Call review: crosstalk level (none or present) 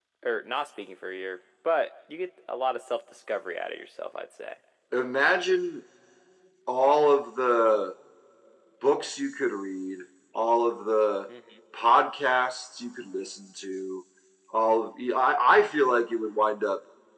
none